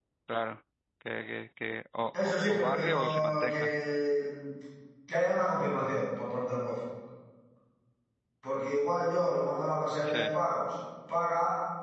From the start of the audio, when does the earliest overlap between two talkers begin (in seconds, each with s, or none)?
2.5 s